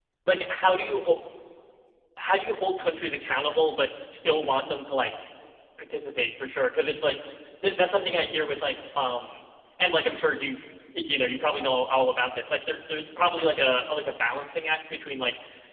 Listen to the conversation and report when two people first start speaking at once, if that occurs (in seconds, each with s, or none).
none